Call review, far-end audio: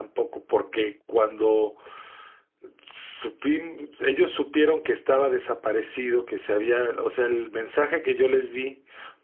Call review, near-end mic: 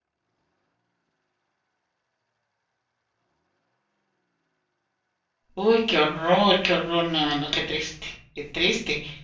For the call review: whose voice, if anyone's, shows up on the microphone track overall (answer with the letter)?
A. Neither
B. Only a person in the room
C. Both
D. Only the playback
B